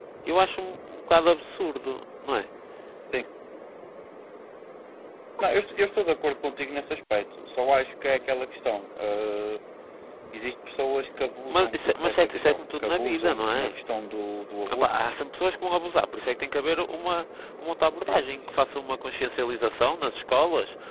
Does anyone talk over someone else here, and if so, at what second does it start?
11.5 s

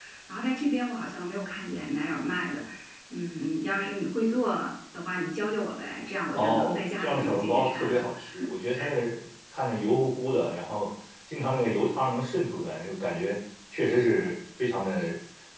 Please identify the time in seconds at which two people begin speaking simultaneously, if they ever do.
6.3 s

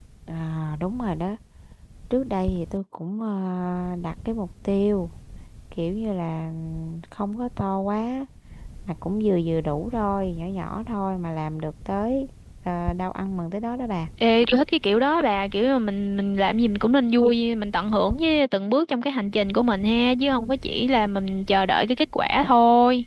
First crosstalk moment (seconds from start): none

